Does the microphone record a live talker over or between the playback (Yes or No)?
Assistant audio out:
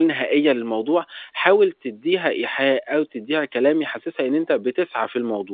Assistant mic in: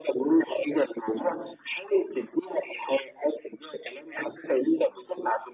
No